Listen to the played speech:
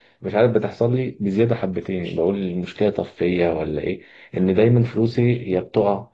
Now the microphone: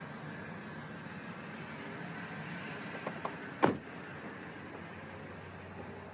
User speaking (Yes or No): No